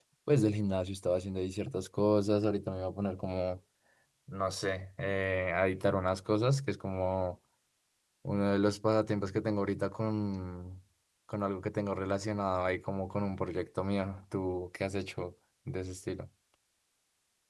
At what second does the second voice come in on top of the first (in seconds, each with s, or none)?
none